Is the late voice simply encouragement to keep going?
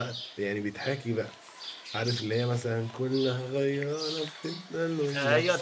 No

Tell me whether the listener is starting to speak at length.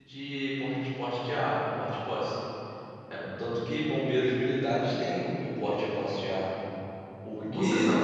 Yes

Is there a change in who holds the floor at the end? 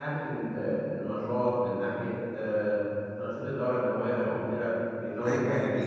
Yes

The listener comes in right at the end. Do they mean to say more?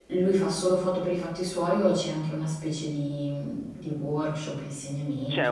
Yes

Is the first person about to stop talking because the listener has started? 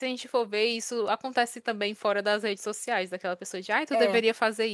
No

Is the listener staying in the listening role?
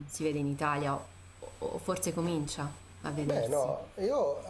No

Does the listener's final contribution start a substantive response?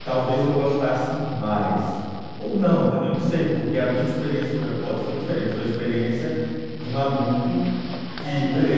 No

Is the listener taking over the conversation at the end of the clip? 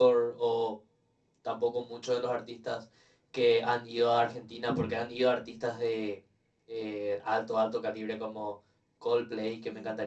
No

